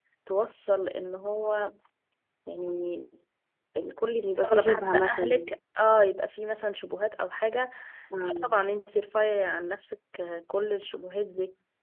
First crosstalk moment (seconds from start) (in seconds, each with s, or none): 4.2 s